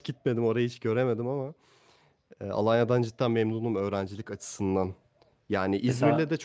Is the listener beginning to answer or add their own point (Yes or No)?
No